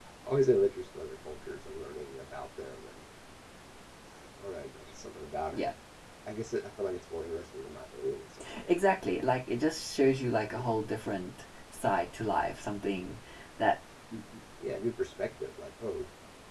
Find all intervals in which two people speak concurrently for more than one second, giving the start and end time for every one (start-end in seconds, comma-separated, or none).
none